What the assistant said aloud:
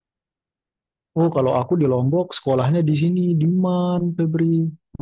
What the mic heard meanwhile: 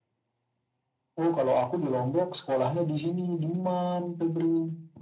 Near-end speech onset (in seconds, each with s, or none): none